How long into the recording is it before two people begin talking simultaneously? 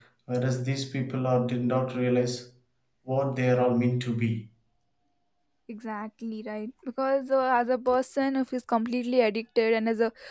none

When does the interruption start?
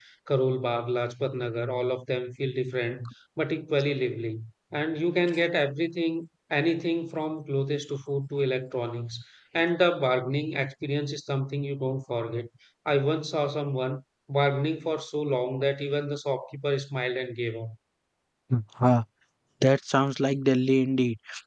none

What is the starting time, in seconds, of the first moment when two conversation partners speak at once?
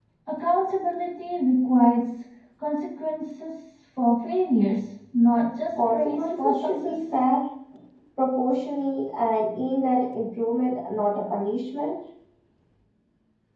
5.8 s

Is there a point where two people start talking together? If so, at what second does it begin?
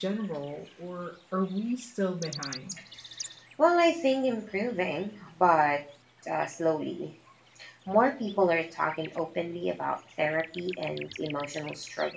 none

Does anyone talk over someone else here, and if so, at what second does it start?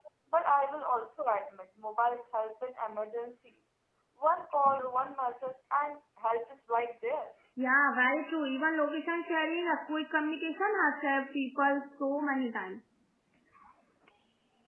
none

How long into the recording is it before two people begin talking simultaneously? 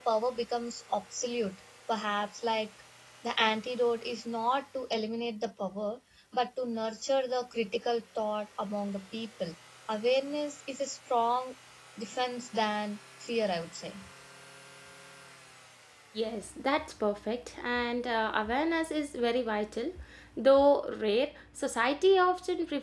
none

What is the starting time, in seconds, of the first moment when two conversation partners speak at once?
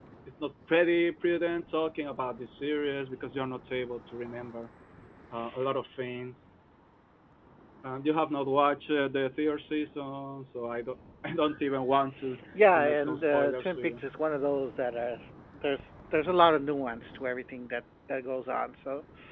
12.6 s

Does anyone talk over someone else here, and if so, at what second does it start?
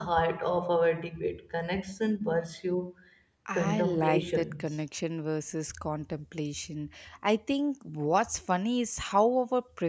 3.5 s

